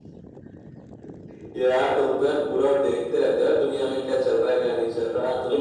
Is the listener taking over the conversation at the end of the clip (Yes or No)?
No